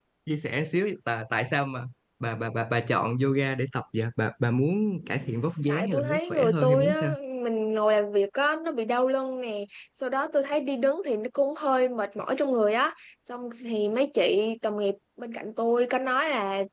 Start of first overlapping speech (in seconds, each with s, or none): 5.7 s